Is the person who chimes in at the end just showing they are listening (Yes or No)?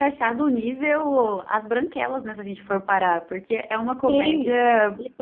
No